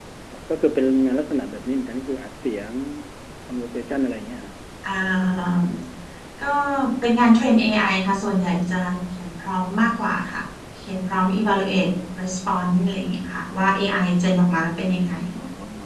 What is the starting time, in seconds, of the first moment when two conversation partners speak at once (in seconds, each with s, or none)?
none